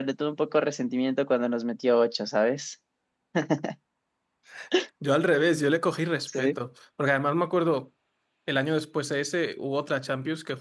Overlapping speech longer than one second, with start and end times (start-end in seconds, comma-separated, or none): none